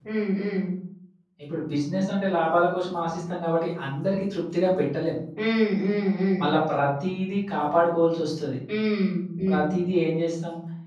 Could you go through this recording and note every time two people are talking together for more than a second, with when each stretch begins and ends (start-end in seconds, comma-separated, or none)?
none